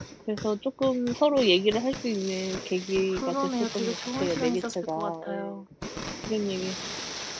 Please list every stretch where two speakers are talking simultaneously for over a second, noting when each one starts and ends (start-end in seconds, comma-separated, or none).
3.1-5.6